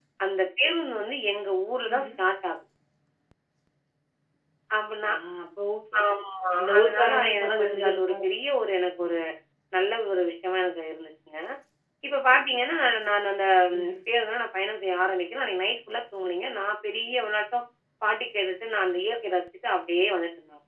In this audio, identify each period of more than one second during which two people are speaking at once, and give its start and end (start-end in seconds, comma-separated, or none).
6.8-8.2